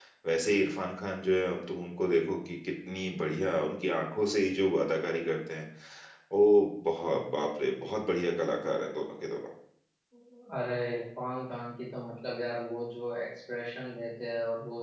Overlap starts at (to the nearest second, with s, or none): none